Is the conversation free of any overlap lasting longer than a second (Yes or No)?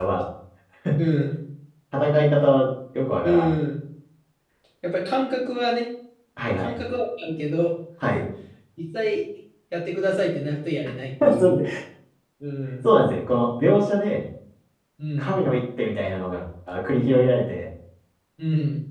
Yes